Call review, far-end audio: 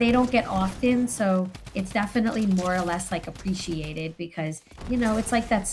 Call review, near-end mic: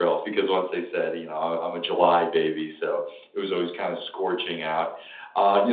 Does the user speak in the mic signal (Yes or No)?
Yes